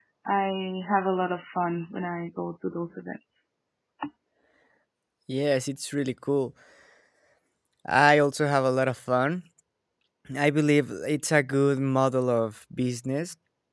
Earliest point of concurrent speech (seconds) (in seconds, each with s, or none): none